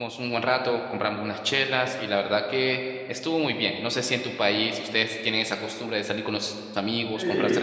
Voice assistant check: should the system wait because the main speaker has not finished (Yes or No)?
No